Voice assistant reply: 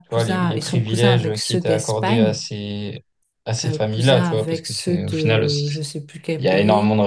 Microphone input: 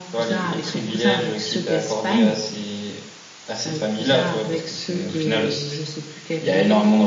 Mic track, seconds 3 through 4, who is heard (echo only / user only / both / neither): echo only